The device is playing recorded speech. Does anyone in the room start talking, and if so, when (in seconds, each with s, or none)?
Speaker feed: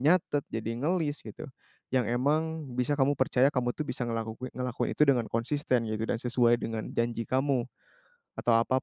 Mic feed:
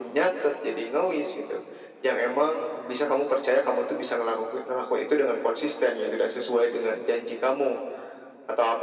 none